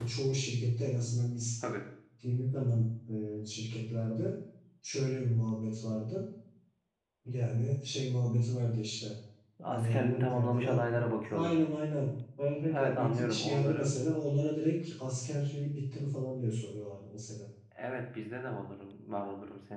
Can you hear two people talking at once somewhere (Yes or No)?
Yes